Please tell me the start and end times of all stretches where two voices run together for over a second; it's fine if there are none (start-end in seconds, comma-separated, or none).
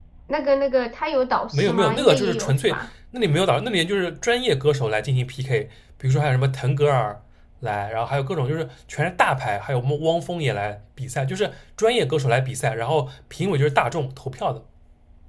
1.5-2.8